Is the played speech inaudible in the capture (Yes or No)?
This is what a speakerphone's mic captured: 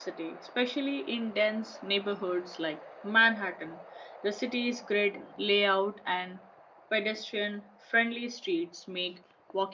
Yes